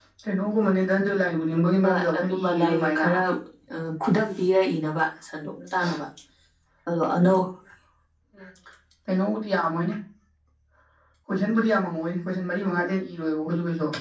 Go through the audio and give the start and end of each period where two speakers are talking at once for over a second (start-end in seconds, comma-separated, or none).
1.8-3.0